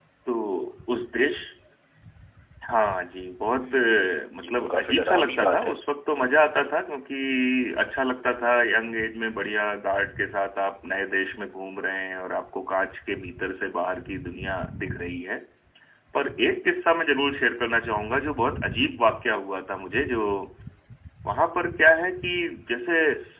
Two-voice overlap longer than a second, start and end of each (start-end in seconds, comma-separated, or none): 4.4-5.7